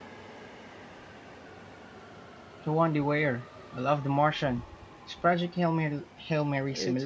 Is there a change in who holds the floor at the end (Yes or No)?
Yes